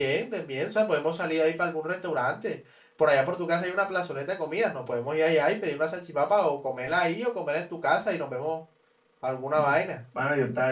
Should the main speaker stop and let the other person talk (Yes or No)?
Yes